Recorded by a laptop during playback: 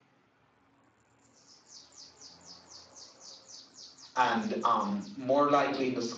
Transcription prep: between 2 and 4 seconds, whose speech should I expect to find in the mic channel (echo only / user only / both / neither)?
neither